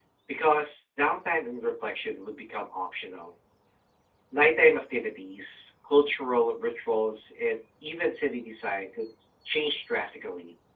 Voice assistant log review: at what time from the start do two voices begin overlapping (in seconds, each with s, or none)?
none